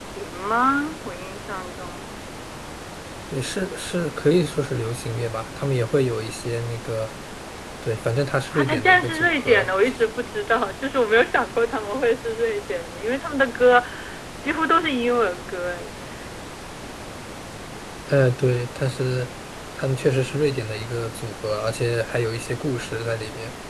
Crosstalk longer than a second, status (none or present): present